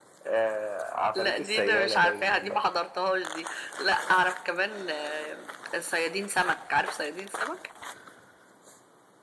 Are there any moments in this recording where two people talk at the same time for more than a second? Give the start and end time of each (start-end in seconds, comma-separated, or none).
1.1-2.6